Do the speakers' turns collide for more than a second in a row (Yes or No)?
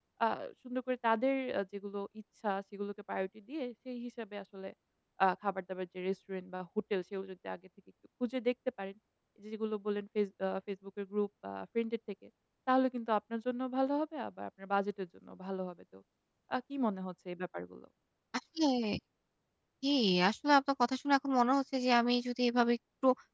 No